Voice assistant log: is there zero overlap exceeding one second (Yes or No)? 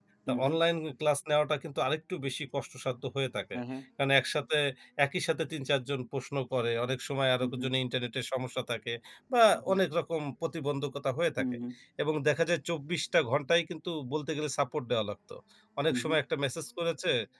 Yes